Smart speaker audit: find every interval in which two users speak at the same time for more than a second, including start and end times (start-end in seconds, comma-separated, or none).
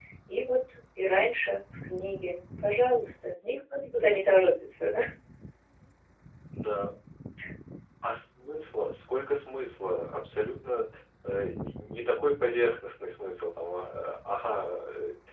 none